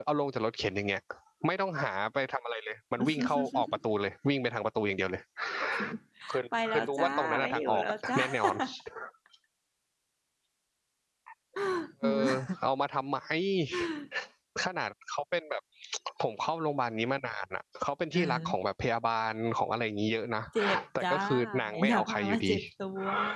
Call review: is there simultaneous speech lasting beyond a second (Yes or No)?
Yes